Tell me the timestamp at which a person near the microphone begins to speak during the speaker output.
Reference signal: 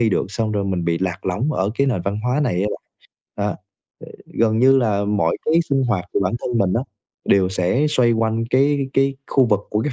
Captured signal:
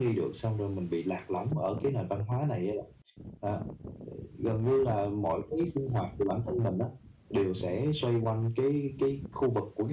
none

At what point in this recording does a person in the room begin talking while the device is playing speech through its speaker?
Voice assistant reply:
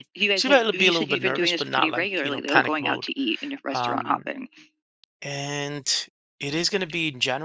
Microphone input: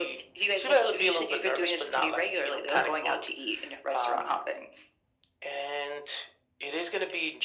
none

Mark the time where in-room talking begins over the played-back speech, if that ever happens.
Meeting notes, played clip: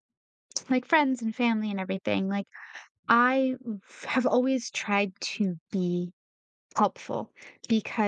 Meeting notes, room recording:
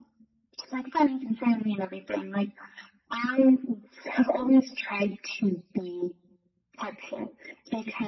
none

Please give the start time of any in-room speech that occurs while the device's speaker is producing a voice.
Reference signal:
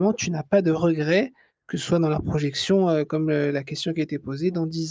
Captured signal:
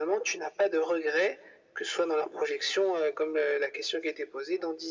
none

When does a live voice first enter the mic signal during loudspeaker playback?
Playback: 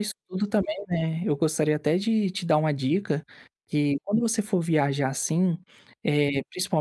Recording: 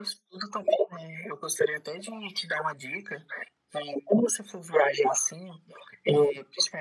none

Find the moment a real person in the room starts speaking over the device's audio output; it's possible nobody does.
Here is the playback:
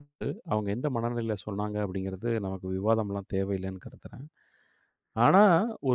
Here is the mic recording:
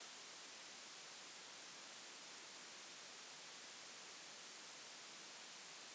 none

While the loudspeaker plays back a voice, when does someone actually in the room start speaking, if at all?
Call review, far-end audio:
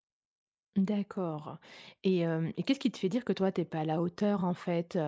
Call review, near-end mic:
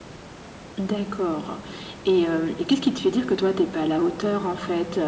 none

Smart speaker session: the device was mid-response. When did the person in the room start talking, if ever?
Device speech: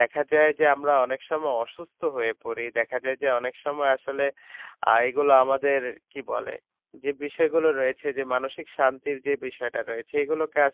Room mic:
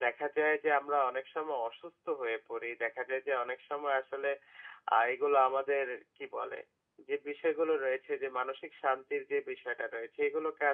none

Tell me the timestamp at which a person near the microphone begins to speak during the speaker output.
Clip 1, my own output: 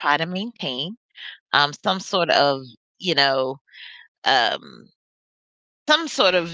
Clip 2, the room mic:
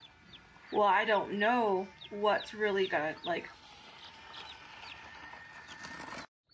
0.7 s

